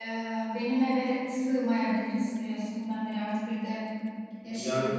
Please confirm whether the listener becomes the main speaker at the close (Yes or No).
Yes